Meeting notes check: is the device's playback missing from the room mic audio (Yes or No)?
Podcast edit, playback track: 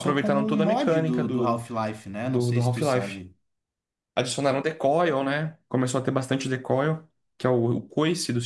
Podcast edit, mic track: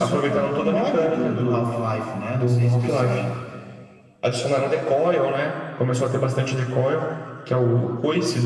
No